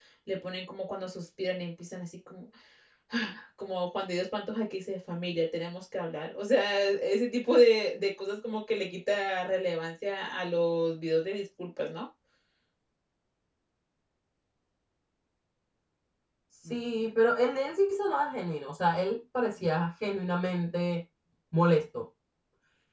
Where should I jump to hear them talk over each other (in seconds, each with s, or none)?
none